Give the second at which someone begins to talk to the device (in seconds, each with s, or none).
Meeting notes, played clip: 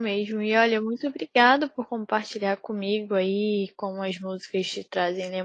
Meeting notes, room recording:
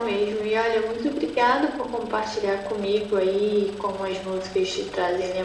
none